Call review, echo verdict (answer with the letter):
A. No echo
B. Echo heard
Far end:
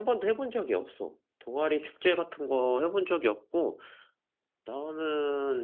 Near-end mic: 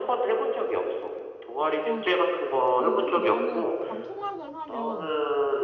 B